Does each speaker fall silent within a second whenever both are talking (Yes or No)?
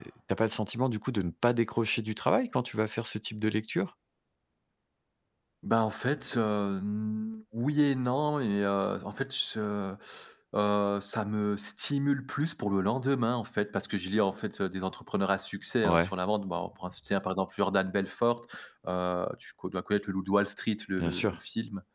Yes